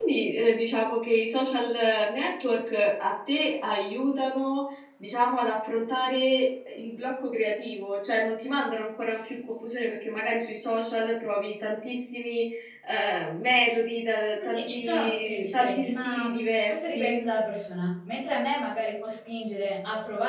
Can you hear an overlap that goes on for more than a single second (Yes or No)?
Yes